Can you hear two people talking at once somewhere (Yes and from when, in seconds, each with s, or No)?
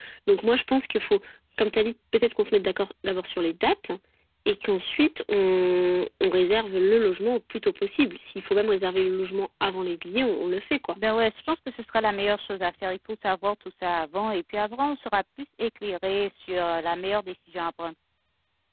No